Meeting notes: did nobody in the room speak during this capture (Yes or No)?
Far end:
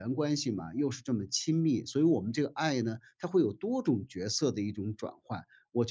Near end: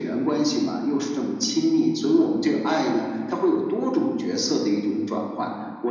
Yes